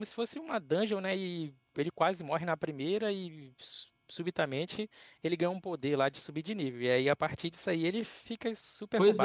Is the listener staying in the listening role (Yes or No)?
No